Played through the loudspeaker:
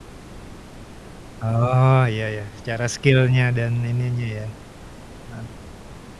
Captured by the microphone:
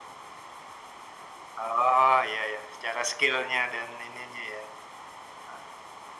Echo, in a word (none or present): present